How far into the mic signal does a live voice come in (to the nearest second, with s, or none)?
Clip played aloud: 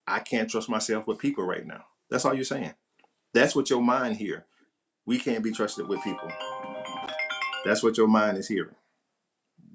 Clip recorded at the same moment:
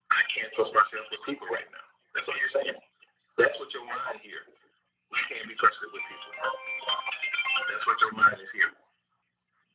none